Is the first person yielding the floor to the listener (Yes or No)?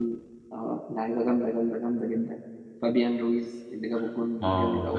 Yes